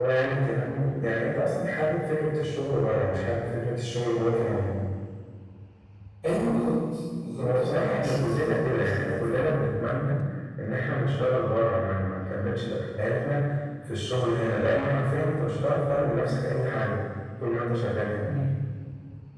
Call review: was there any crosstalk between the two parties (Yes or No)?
Yes